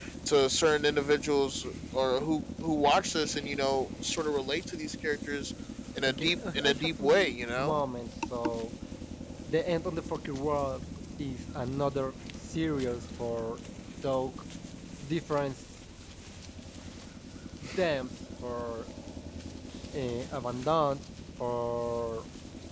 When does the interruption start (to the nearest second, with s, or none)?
6 s